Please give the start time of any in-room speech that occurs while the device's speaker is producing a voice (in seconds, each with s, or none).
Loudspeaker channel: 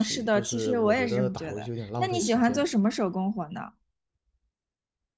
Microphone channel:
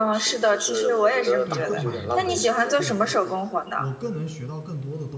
1.4 s